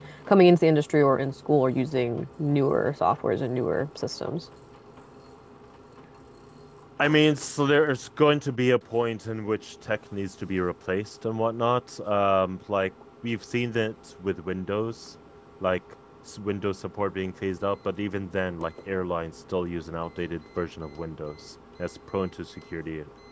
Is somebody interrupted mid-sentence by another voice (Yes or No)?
No